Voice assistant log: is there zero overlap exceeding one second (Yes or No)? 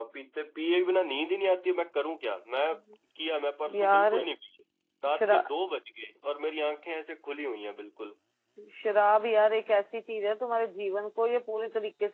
Yes